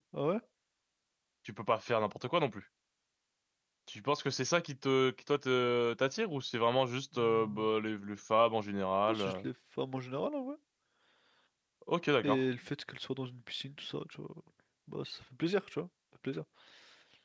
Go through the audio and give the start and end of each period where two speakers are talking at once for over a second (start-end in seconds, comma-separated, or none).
none